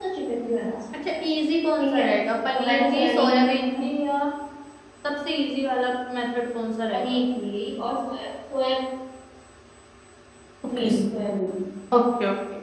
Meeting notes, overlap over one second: present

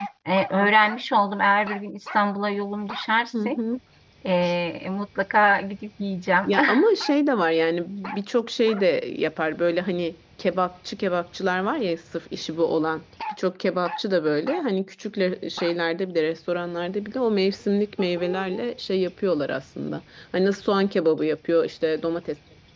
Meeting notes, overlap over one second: none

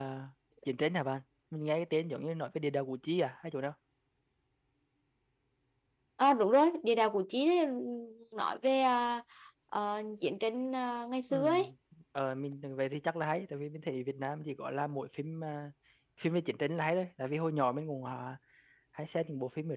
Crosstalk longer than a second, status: none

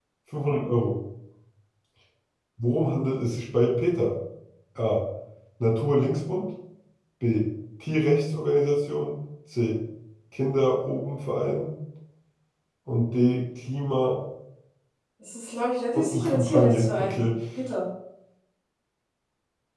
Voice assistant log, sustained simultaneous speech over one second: present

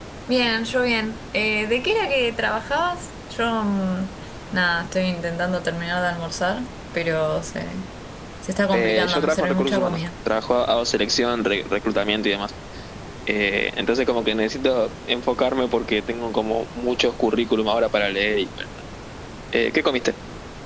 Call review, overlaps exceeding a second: present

